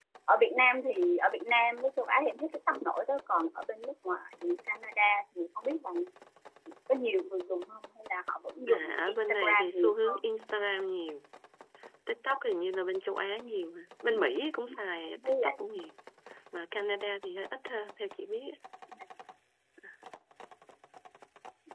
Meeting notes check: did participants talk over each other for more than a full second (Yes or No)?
Yes